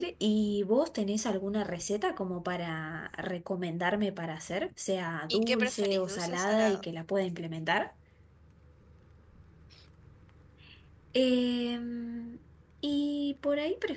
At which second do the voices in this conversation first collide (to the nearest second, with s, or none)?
5 s